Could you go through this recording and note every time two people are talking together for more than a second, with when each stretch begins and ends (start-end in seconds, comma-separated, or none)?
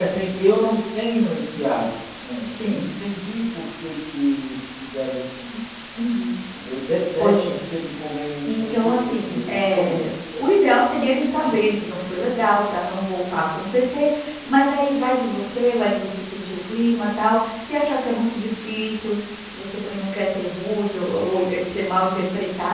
8.5-9.9